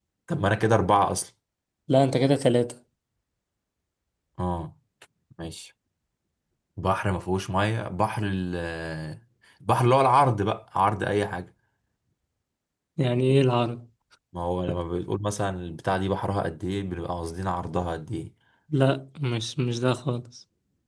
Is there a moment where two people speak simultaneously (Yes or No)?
No